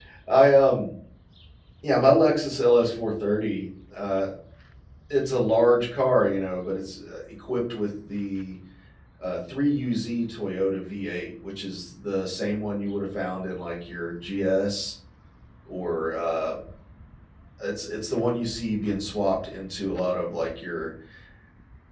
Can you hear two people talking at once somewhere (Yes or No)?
No